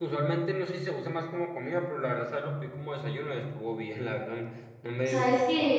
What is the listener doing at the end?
taking over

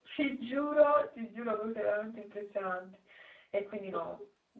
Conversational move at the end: listening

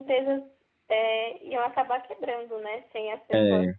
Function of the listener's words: listening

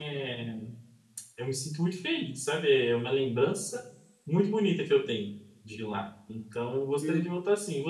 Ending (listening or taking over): listening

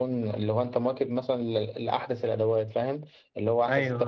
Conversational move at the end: listening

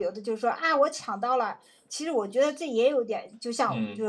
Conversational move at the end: listening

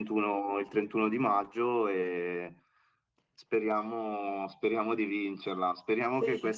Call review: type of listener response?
listening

